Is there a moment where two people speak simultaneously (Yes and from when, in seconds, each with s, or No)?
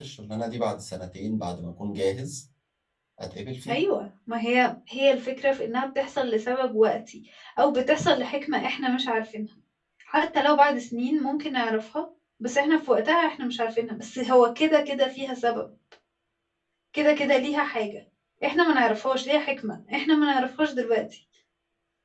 No